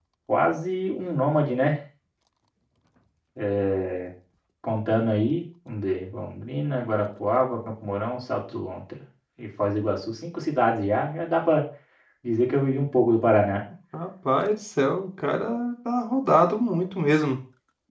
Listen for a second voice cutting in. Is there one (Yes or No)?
No